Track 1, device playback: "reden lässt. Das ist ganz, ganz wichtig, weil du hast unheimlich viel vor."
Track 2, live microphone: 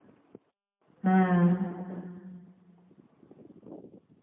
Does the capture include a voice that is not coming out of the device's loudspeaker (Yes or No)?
Yes